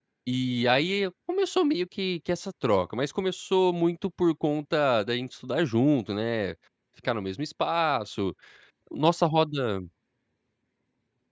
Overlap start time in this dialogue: none

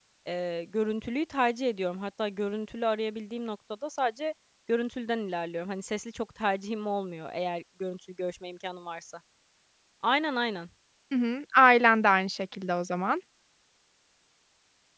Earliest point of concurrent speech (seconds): none

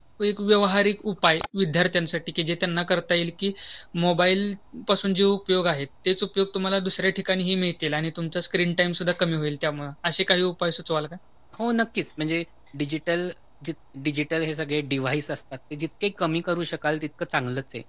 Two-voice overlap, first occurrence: none

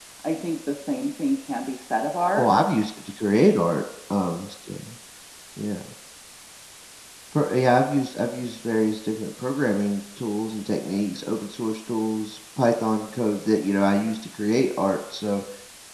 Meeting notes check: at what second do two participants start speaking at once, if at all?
none

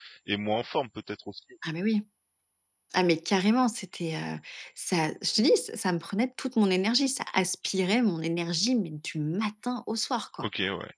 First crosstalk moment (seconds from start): none

